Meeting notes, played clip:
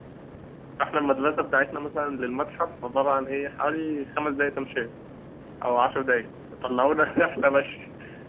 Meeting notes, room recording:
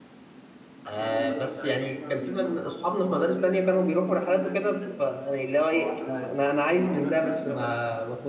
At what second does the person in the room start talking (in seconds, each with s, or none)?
0.9 s